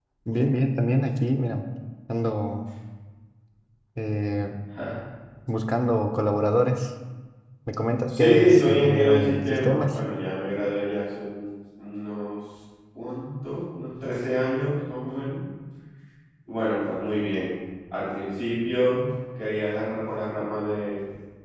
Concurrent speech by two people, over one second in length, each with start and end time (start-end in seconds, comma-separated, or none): 8.1-10.0